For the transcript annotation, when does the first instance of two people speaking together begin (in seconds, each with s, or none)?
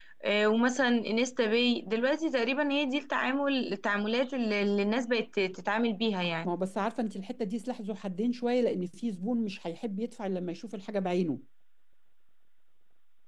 none